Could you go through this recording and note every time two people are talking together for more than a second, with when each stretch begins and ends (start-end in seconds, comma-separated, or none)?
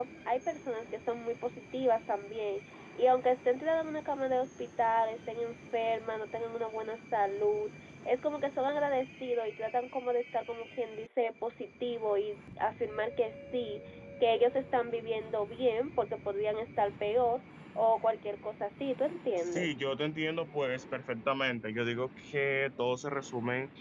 none